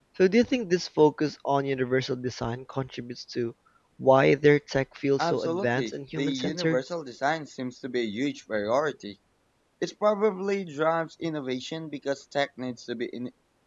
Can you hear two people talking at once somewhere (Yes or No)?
Yes